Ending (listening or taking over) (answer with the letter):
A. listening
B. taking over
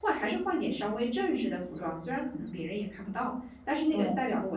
A